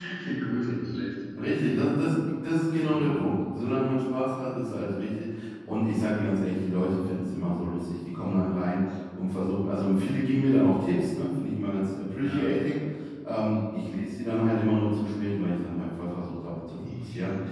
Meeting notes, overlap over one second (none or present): none